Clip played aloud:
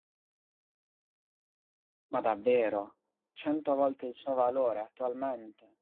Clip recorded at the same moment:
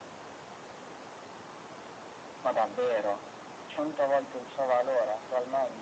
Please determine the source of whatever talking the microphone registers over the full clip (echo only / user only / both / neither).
echo only